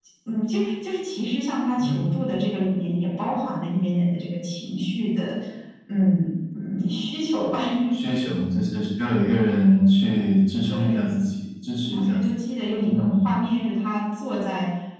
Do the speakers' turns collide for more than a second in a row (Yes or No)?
No